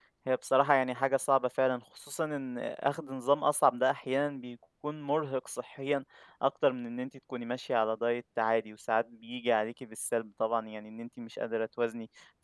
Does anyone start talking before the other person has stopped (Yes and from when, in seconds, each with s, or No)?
No